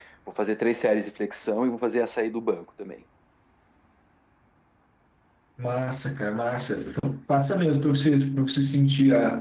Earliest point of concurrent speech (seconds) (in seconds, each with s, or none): none